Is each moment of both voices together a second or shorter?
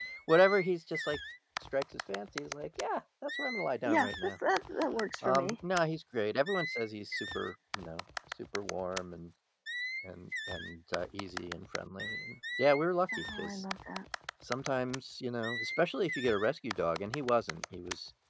Yes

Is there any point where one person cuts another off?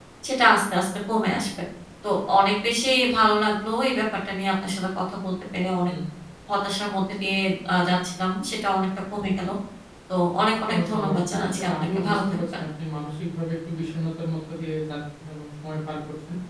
Yes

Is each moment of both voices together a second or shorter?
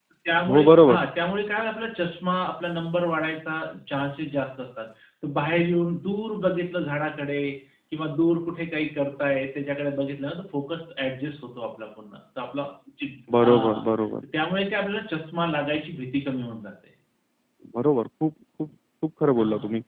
Yes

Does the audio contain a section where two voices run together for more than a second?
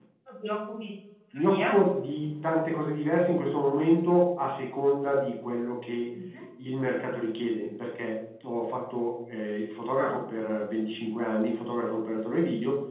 No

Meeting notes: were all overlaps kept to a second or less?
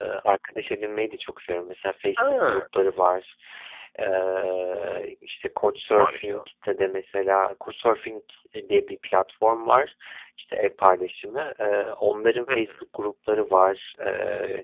Yes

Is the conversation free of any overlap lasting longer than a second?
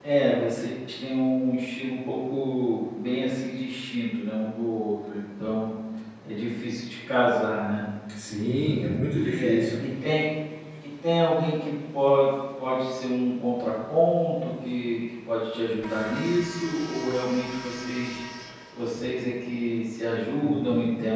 Yes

